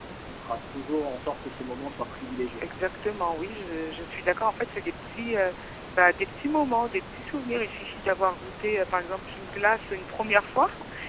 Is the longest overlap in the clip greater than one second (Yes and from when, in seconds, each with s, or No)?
No